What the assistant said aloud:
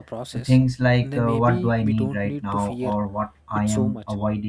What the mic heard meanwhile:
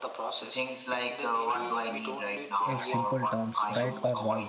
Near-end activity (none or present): present